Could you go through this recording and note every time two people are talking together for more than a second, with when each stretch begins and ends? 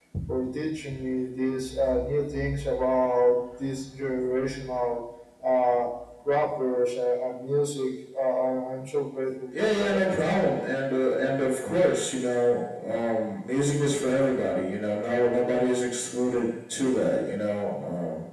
none

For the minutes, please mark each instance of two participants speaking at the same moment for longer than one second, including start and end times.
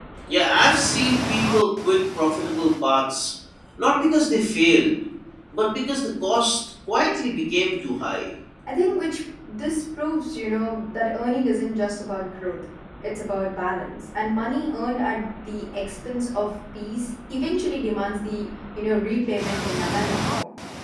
none

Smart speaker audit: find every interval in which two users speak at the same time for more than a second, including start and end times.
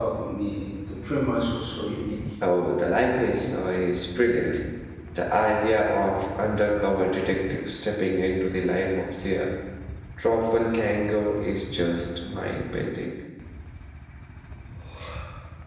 none

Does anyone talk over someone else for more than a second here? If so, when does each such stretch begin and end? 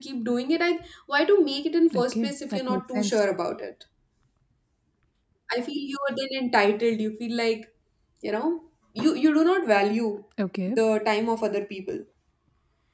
1.9-3.2

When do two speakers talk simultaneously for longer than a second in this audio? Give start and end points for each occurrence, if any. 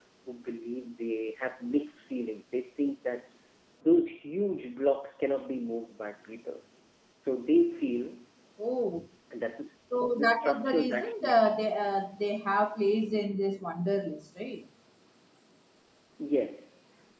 10.2-11.4

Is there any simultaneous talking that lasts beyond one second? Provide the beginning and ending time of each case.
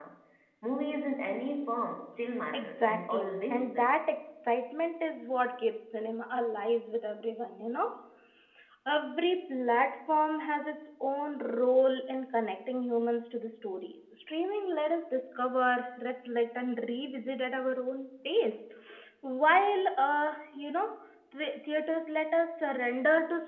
2.5-3.9

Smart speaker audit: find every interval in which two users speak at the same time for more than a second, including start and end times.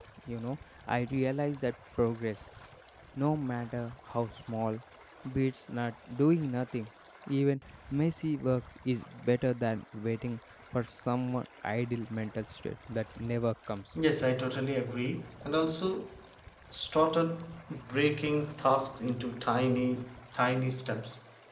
none

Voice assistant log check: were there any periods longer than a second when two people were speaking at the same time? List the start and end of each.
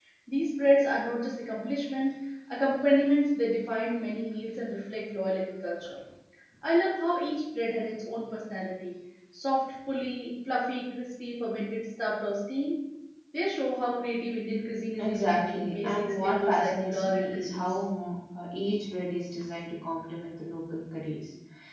15.0-17.8

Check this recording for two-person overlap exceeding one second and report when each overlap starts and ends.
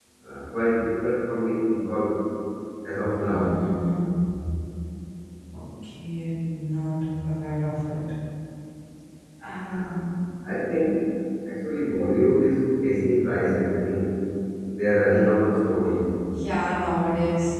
none

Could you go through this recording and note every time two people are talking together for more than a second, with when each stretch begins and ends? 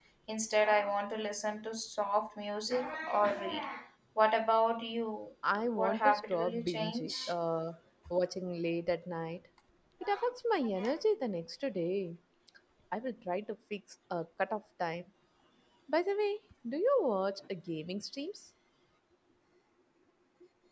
5.8-7.3

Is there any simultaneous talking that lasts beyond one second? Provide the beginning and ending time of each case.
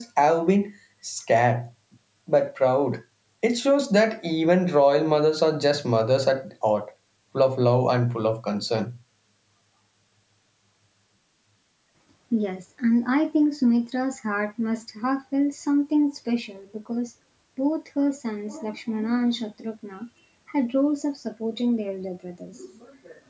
none

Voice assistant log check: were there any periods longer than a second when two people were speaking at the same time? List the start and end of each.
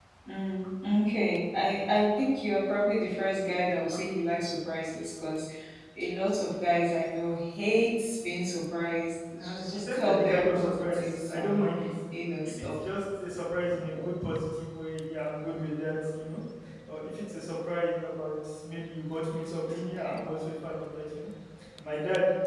9.4-11.7

